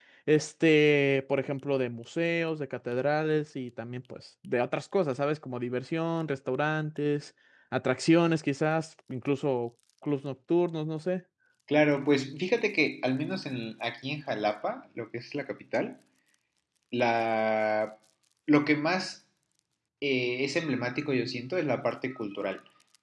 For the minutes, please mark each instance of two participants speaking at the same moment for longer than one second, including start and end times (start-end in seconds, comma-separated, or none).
none